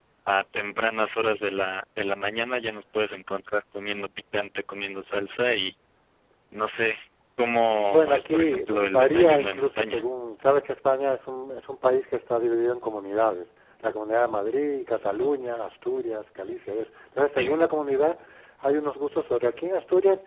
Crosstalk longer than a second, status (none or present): present